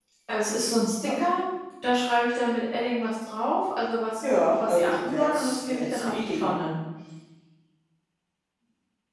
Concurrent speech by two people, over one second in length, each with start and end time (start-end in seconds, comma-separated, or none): 4.3-6.5